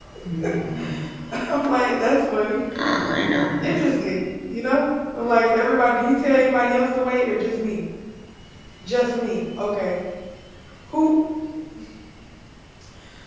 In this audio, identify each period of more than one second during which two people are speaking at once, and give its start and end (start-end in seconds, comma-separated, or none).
none